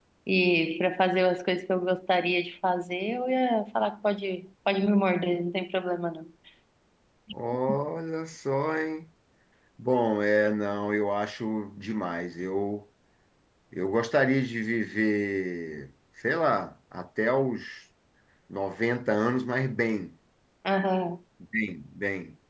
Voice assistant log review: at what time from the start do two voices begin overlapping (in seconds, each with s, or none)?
none